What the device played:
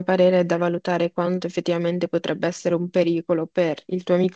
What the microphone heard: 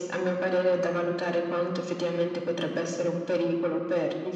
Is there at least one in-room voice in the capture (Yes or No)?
No